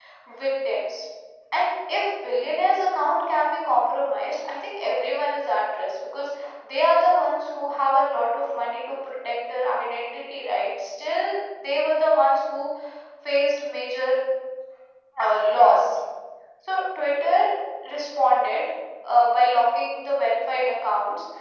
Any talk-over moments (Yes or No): No